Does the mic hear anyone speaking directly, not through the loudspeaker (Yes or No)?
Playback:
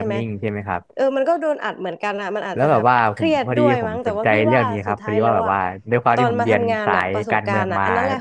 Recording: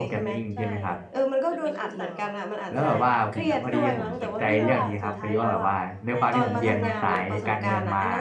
Yes